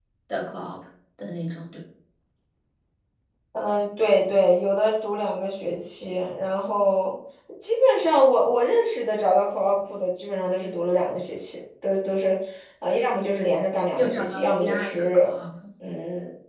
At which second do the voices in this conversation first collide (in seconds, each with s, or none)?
13.9 s